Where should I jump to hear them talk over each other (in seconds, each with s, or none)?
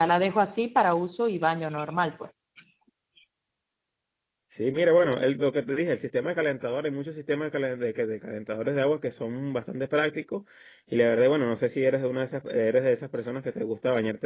none